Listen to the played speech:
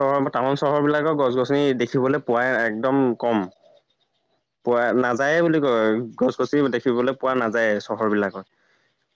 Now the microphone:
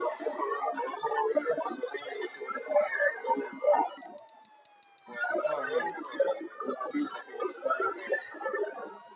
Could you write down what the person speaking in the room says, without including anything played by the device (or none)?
হয় হয়